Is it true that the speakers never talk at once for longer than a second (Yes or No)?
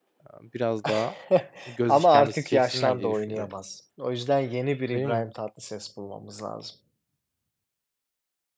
No